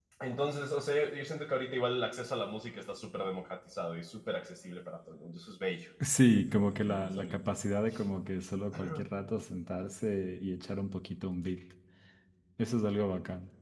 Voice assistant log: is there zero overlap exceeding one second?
No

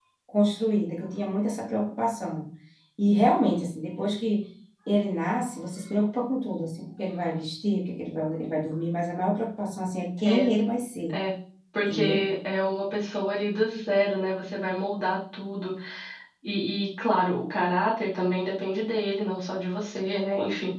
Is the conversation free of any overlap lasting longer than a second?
Yes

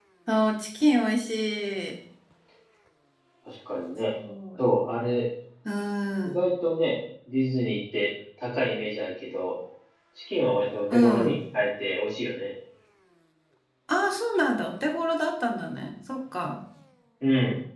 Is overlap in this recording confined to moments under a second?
Yes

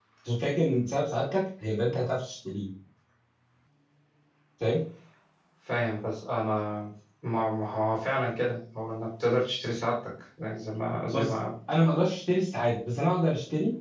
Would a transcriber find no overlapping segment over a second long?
Yes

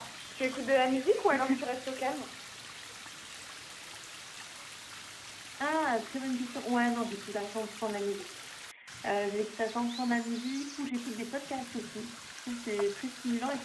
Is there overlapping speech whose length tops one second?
No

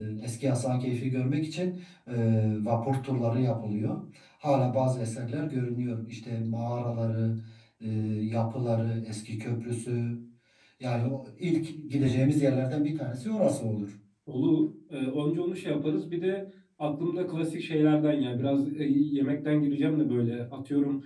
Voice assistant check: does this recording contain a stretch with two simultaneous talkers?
No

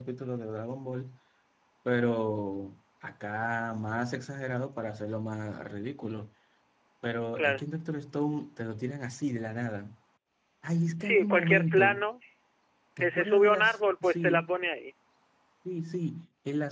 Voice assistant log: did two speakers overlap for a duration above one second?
Yes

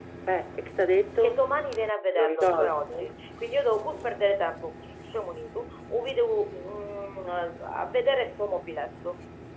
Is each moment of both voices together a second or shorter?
Yes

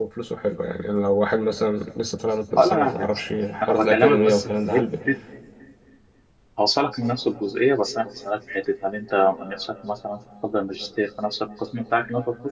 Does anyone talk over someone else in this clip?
Yes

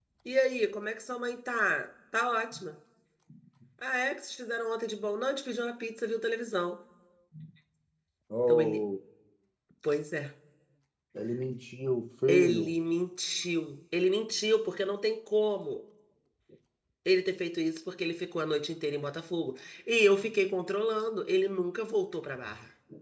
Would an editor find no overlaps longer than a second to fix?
Yes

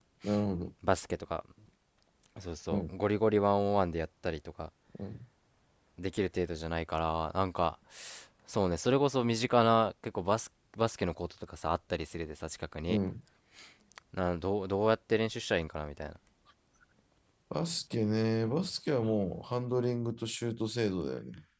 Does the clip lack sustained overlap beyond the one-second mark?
Yes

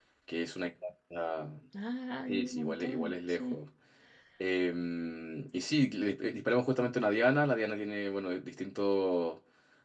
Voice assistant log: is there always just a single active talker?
No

